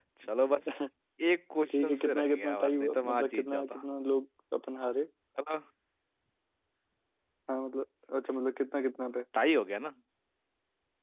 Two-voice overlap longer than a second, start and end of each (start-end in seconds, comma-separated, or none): 1.7-3.8